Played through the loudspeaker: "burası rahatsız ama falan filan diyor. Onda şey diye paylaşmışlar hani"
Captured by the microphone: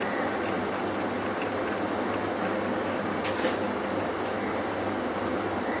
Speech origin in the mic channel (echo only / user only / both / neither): neither